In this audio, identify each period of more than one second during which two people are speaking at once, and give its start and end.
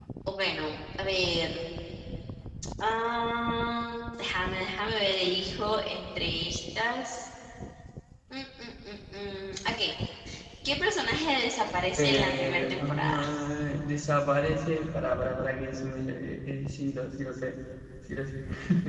12.0-13.2

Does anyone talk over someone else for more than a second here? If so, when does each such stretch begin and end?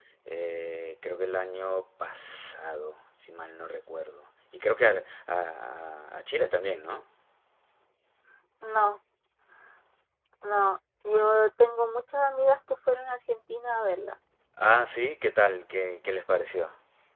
none

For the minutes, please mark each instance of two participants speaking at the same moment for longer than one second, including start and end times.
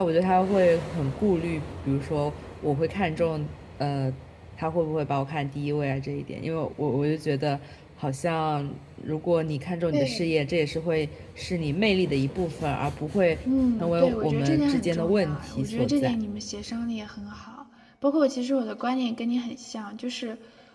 13.8-16.2

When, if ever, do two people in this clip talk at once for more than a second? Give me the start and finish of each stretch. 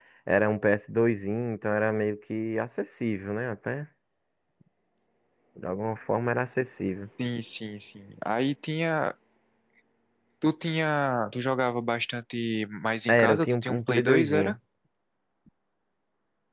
13.1-14.3

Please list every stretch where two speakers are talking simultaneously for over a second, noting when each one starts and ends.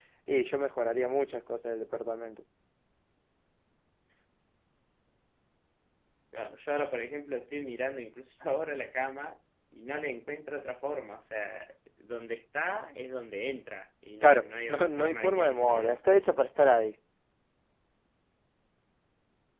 14.2-16.0

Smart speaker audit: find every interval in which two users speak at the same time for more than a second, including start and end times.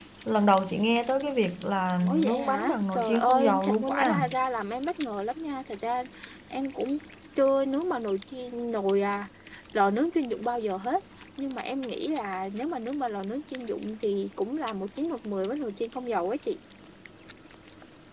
2.0-4.2

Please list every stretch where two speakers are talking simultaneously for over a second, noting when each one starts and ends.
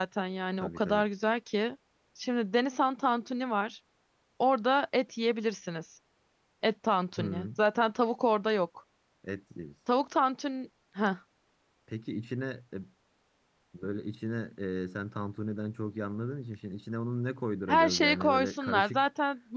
17.7-19.0

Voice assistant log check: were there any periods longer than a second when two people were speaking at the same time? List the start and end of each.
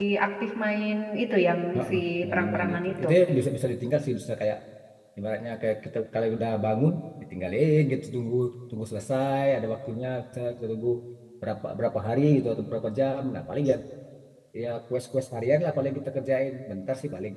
1.7-3.1

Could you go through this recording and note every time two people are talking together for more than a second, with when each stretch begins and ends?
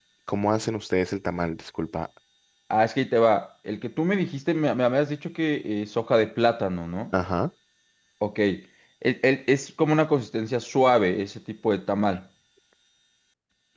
none

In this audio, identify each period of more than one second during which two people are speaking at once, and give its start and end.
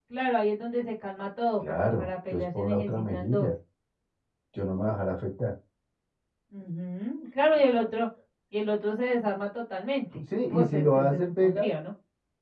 1.8-3.5, 10.4-11.7

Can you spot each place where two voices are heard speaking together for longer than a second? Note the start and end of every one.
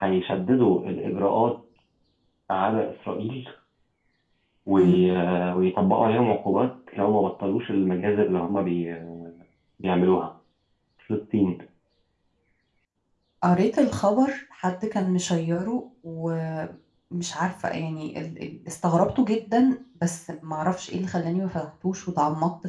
none

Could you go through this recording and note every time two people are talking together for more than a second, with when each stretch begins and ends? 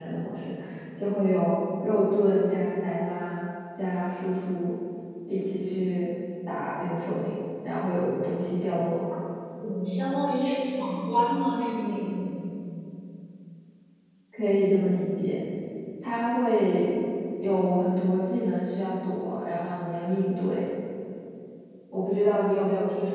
none

